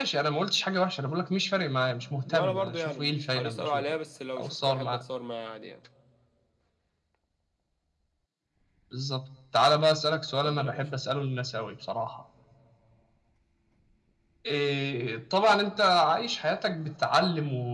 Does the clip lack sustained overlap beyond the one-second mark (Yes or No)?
No